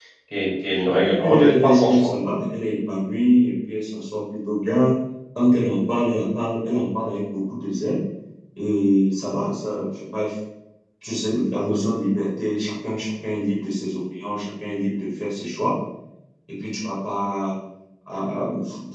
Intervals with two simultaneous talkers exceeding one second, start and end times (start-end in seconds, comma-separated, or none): 0.9-2.1